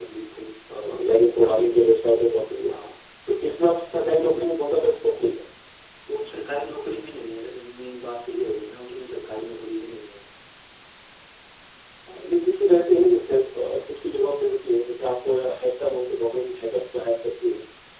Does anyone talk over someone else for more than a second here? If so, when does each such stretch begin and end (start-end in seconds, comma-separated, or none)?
none